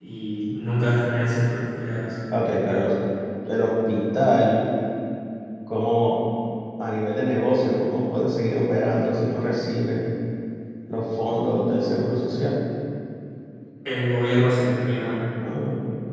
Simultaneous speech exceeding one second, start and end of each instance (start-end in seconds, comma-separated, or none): none